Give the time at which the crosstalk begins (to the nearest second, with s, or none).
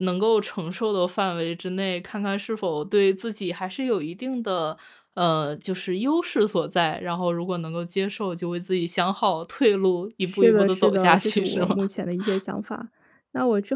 10 s